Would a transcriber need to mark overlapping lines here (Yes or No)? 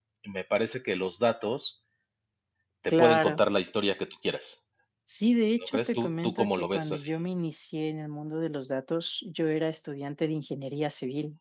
Yes